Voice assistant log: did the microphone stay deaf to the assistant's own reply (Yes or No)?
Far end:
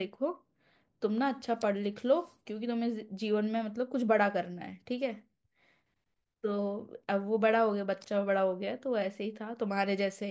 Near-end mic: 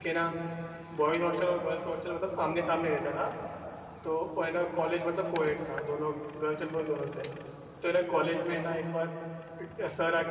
Yes